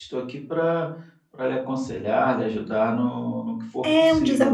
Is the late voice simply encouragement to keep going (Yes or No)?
No